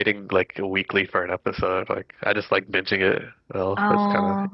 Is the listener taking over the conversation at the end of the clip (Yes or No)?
Yes